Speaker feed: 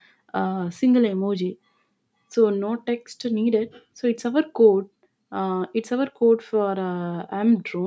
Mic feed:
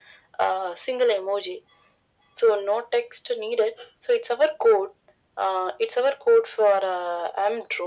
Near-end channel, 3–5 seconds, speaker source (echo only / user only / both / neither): echo only